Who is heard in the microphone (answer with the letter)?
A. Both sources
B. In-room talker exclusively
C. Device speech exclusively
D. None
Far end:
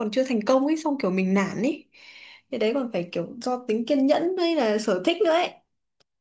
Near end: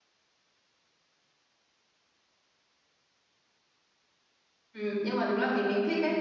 B